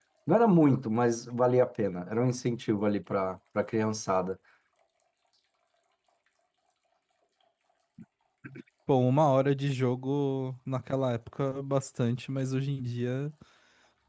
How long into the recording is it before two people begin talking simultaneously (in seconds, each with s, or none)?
none